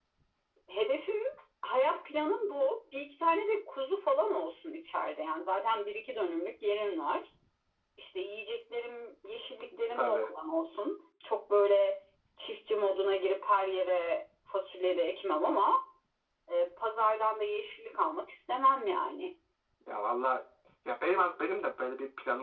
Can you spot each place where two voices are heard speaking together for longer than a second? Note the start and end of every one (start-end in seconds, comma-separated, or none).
none